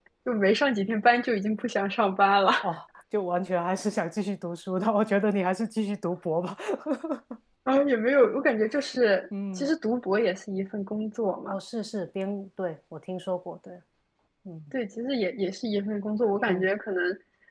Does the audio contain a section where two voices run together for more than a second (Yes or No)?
No